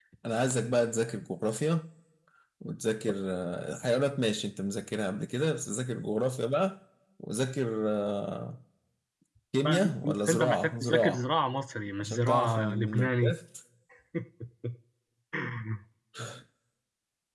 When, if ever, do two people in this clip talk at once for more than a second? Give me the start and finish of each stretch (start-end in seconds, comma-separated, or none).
9.6-11.3, 12.0-13.3